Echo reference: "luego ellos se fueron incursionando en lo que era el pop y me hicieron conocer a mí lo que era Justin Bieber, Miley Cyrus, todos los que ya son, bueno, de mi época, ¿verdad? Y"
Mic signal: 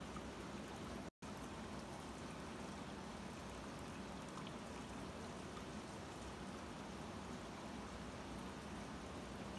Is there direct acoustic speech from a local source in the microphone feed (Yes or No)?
No